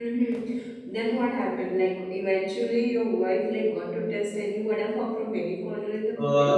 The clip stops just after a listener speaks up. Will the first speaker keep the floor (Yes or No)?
No